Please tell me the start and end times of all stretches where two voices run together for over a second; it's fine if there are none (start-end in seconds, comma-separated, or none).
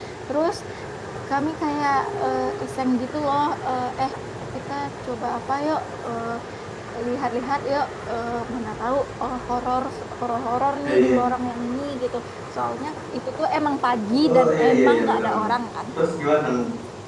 14.2-15.5